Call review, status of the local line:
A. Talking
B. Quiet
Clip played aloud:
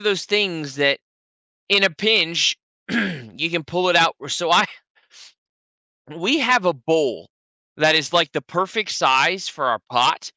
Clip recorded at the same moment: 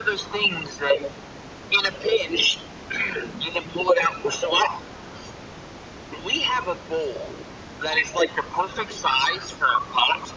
B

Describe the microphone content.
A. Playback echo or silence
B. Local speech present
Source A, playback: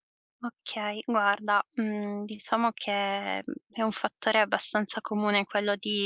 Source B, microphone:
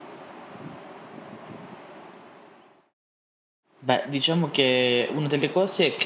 B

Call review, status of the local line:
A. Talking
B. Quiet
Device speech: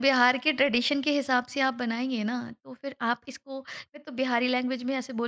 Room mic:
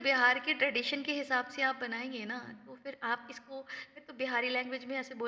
B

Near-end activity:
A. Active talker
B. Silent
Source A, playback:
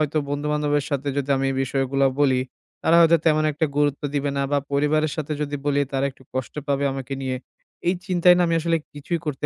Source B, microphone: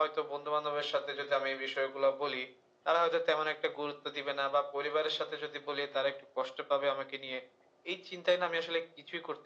B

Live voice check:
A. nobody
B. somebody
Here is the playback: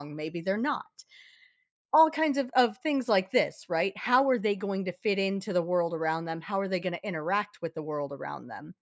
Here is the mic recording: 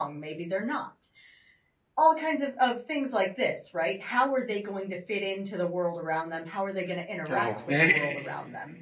B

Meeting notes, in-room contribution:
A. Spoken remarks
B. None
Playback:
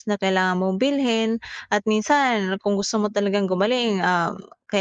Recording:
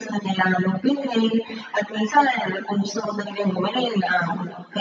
B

